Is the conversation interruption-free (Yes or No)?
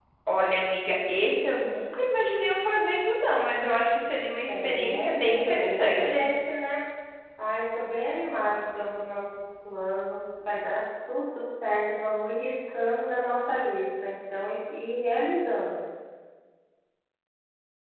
No